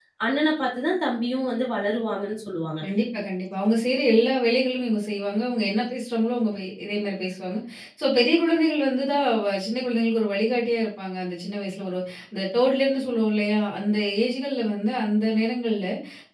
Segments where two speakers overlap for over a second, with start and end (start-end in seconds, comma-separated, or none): none